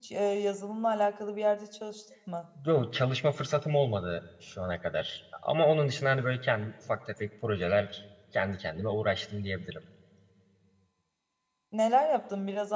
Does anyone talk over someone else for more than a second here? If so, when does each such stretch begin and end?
none

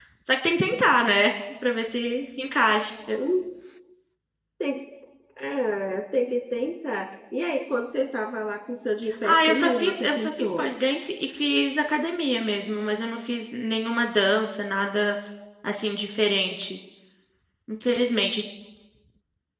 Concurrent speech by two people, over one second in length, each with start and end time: 9.2-10.6

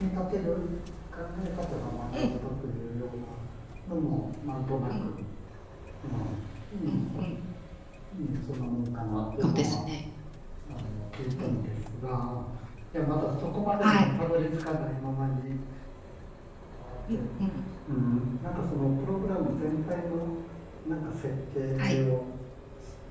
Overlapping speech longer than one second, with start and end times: none

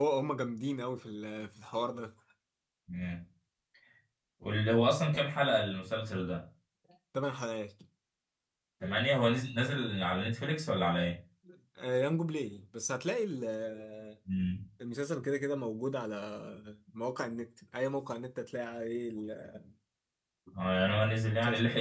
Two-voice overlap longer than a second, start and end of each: none

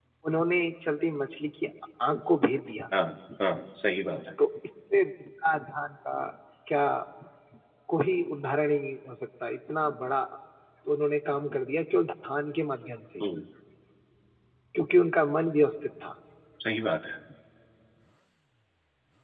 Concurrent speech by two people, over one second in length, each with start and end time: none

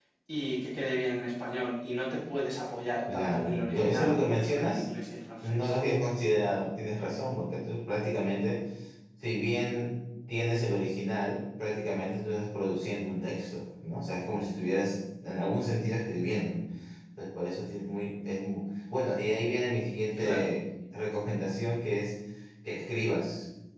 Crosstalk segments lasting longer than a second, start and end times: 3.1-4.9

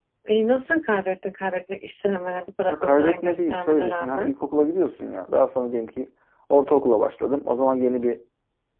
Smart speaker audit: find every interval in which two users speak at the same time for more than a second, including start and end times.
2.7-4.3

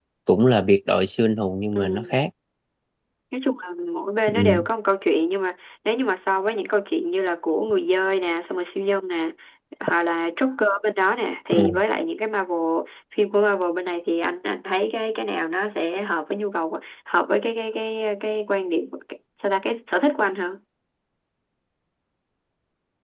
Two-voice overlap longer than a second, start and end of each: none

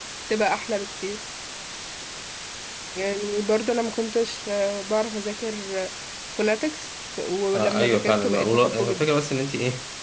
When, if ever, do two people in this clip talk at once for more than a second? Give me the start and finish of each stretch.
7.5-9.1

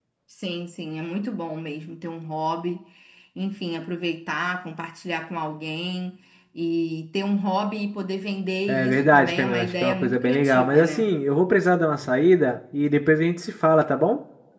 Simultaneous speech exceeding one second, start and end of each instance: 8.7-11.1

